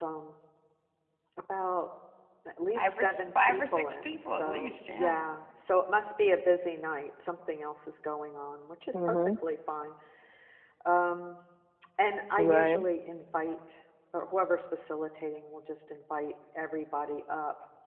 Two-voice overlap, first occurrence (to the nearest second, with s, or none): 3 s